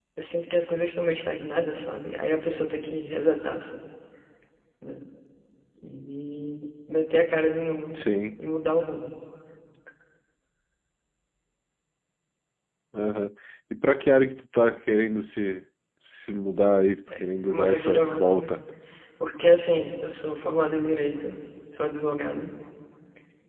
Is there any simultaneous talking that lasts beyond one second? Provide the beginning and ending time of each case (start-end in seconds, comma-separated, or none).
17.2-18.6